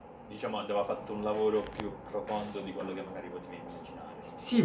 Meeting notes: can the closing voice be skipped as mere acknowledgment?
No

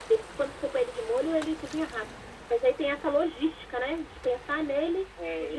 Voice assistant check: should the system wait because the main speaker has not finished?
No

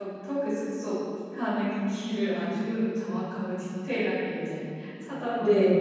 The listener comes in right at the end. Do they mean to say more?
Yes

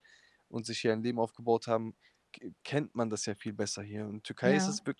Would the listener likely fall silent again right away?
Yes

